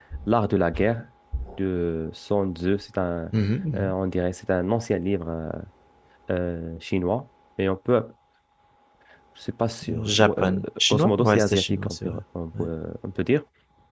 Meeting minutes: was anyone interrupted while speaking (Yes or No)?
Yes